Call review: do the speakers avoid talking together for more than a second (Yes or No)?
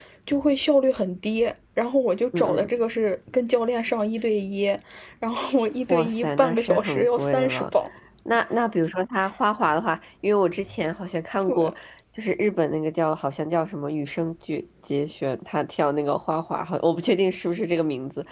No